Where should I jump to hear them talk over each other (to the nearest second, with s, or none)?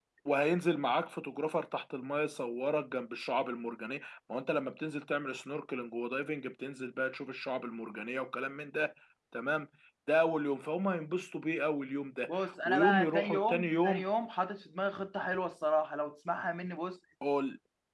12 s